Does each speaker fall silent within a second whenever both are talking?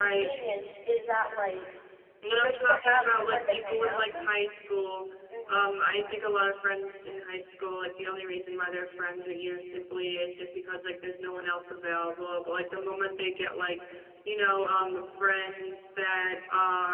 No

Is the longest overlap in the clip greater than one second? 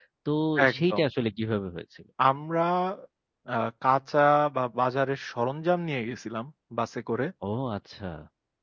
No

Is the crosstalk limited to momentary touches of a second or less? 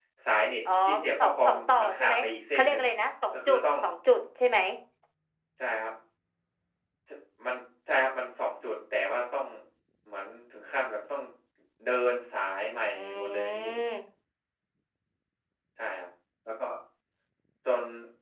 No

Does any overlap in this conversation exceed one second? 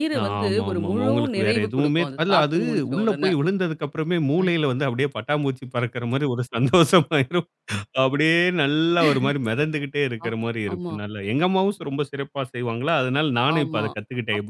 Yes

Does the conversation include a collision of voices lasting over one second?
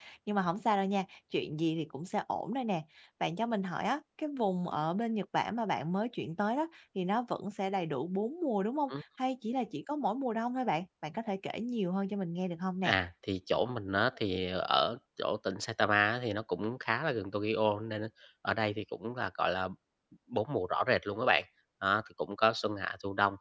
No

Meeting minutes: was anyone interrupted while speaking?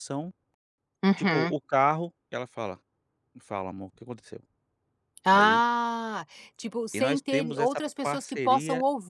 Yes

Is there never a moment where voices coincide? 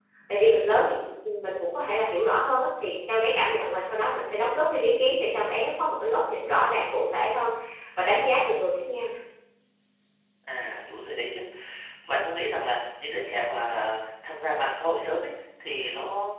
Yes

